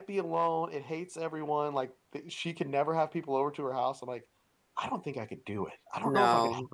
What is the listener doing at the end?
listening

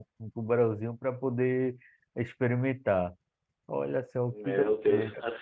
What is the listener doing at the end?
taking over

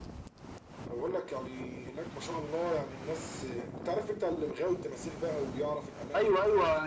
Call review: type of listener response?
taking over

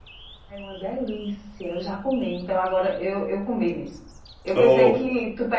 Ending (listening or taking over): listening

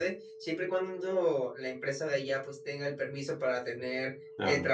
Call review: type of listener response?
listening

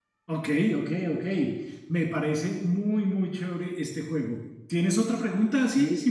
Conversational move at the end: taking over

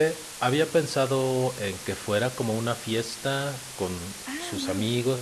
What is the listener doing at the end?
listening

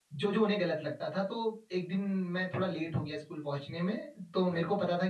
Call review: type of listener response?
listening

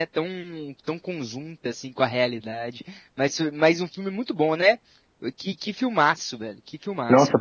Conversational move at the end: taking over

